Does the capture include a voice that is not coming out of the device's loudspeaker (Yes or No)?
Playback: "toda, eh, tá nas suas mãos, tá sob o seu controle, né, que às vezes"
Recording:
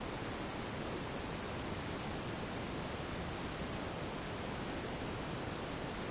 No